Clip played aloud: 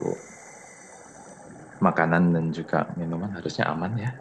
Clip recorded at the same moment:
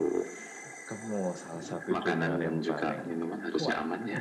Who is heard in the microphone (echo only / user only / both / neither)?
both